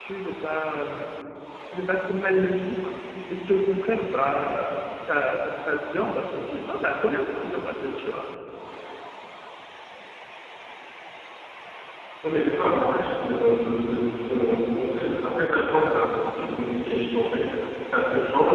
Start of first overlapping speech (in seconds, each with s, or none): none